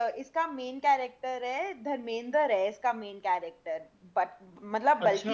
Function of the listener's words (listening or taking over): listening